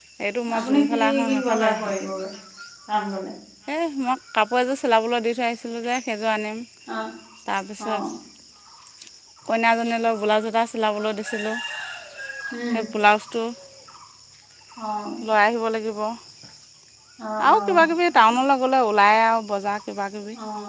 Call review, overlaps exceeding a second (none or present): present